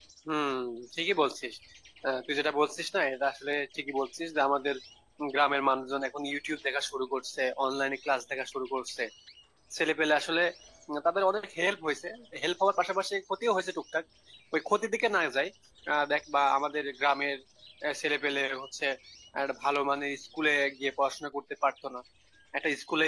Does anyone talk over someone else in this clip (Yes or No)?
No